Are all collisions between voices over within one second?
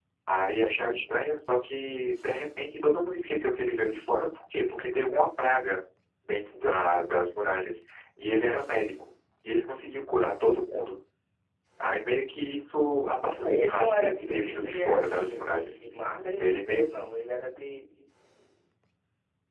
No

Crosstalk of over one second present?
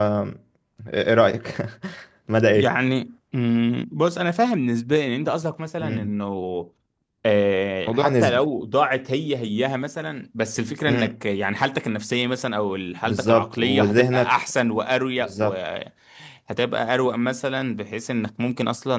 Yes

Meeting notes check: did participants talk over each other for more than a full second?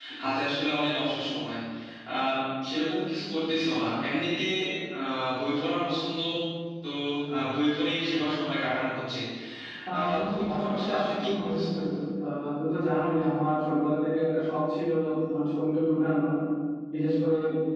Yes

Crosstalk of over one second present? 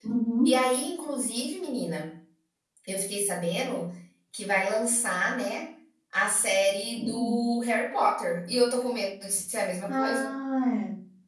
No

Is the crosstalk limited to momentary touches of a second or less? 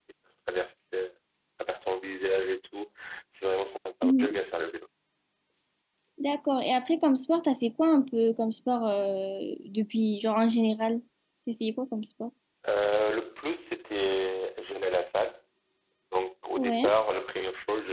Yes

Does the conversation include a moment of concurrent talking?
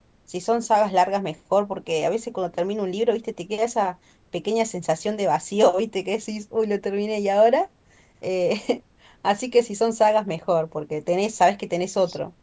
No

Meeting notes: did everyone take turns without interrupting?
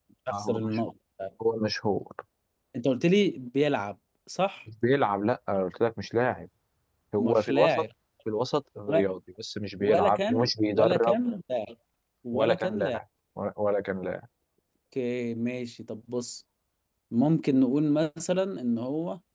No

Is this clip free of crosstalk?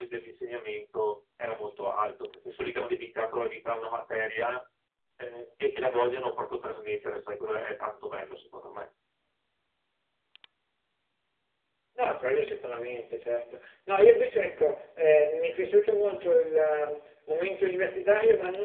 Yes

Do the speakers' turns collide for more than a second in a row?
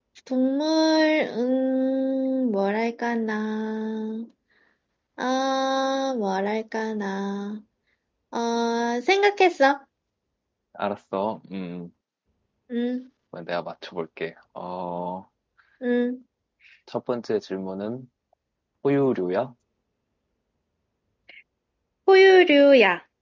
No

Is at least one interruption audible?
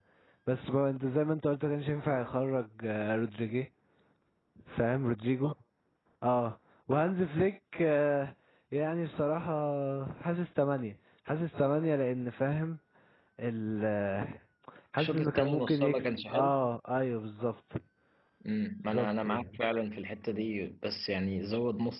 Yes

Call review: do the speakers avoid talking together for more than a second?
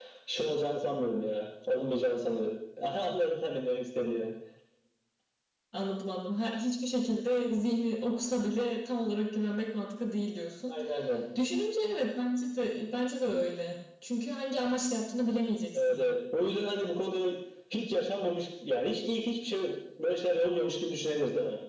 Yes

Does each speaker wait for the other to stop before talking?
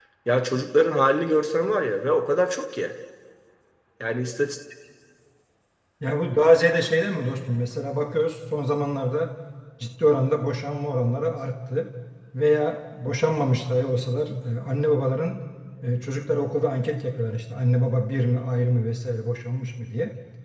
Yes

